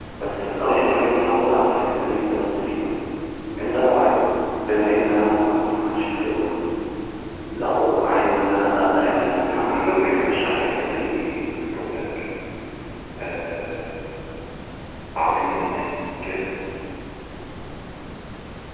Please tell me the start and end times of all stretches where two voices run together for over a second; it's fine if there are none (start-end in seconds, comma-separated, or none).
9.5-11.1